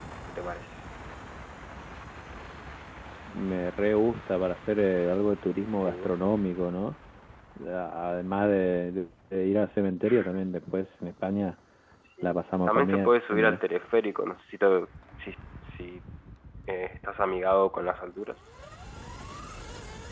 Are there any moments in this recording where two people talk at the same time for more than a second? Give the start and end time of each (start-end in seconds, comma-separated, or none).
12.2-13.6